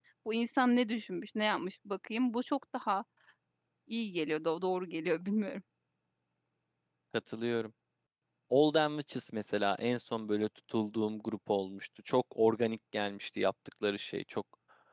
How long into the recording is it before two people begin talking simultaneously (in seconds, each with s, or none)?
none